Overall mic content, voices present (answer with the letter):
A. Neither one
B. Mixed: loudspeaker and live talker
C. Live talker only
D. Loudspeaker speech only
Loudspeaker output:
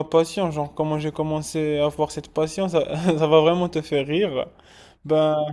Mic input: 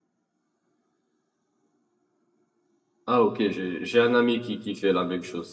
C